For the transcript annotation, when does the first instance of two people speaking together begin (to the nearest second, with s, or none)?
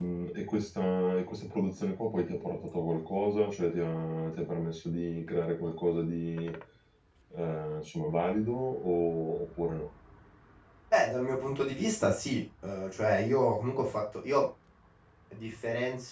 none